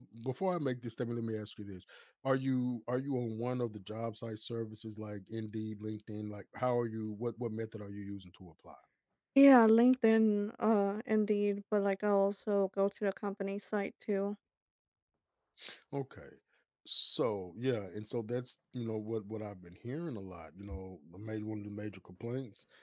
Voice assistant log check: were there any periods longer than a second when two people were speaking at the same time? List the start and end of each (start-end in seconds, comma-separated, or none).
none